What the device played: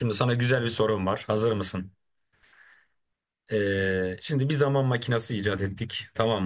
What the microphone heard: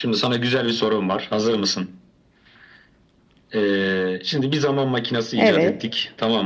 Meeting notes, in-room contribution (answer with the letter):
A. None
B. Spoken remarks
B